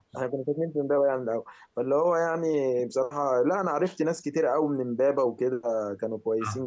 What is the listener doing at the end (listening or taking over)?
taking over